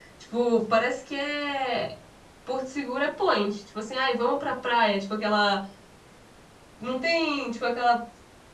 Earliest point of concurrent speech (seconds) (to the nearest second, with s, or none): none